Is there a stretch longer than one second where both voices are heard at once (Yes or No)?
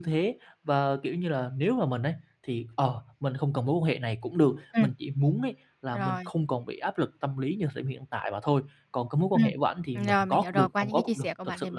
Yes